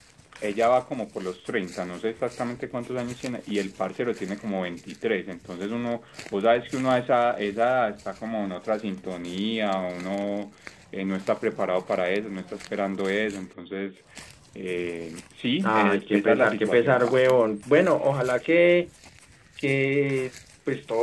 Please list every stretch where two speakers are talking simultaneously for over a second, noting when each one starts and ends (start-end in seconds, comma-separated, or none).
15.6-17.4